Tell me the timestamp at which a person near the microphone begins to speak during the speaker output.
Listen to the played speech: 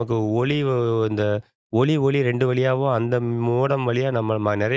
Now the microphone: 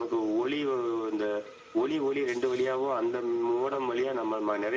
none

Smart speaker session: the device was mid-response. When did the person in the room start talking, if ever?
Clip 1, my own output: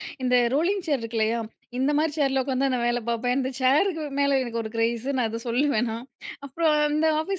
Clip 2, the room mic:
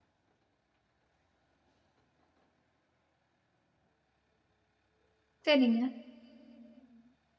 5.5 s

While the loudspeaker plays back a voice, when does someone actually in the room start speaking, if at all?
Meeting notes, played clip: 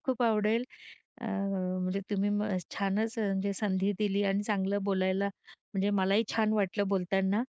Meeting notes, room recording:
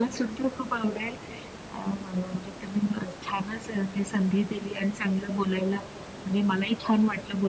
none

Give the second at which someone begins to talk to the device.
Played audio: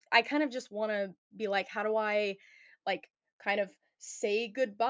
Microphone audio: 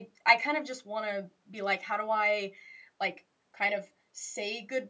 none

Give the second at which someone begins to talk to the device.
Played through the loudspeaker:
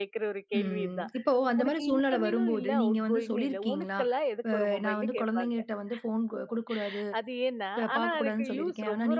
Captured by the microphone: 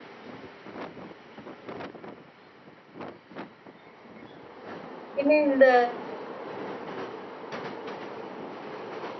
5.2 s

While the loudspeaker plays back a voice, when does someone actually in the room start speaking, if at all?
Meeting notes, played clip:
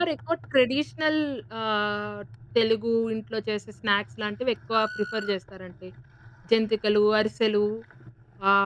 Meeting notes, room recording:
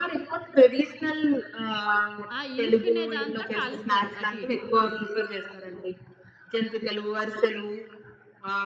2.4 s

